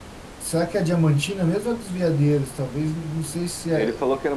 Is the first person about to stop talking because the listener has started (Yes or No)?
Yes